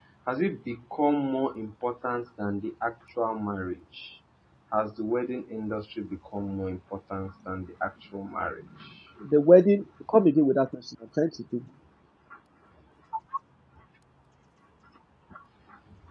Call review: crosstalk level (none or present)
none